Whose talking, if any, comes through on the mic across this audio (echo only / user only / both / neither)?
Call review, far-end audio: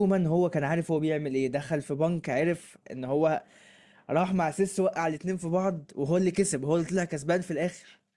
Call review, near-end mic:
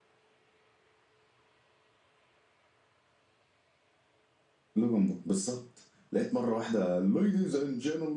user only